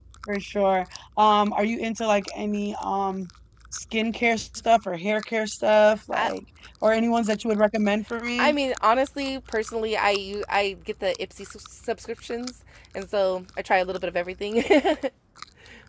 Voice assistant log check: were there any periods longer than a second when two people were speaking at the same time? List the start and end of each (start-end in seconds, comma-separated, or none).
none